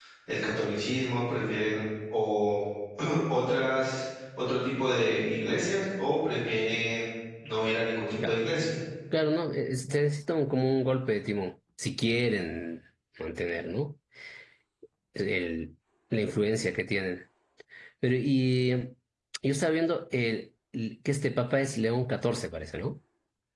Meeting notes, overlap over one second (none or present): none